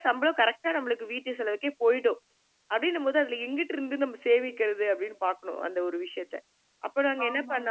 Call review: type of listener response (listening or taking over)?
taking over